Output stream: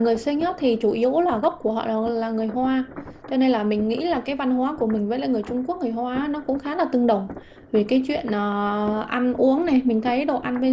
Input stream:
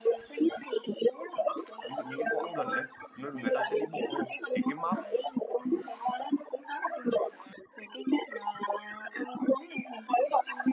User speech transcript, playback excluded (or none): ví dụ những cái quãng gần đấy nó- người ta sẽ đi bộ đúng không thì cái map